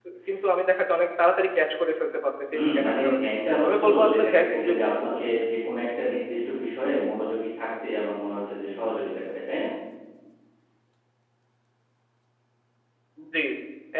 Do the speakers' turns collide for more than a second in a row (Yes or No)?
Yes